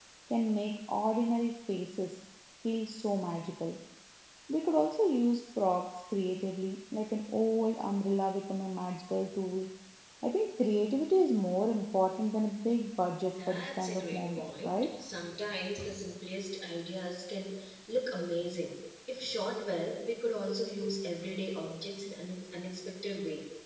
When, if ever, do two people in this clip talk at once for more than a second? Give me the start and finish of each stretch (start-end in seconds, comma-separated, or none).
13.2-14.8